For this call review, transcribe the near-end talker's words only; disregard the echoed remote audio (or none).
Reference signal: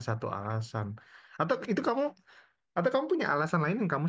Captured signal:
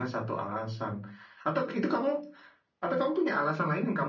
none